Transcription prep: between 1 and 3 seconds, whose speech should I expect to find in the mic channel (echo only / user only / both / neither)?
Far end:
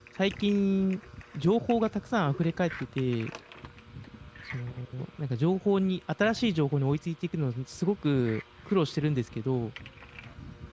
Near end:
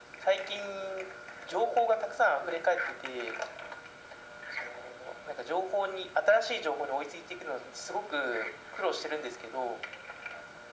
echo only